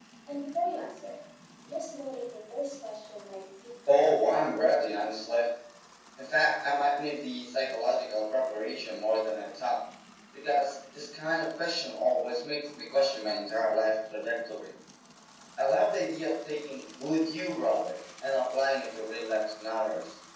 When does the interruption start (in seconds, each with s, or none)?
3.9 s